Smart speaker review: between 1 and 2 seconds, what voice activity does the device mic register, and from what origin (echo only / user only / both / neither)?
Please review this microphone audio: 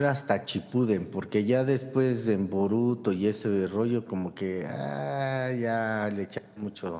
user only